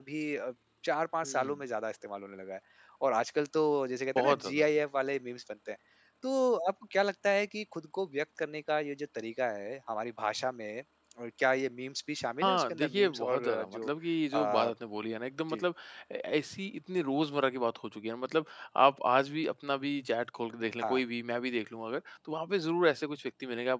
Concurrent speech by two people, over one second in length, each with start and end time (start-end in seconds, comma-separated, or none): 12.4-13.9